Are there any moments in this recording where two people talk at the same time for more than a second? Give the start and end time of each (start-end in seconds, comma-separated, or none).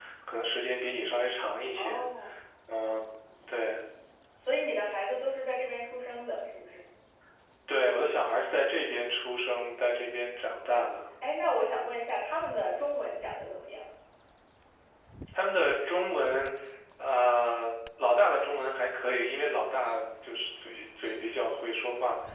none